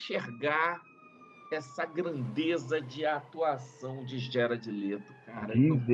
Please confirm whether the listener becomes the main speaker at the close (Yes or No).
Yes